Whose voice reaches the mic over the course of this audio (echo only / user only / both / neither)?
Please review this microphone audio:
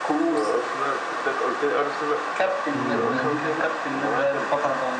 both